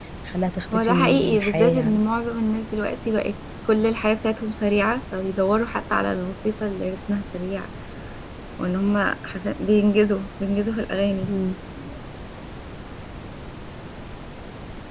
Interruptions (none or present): present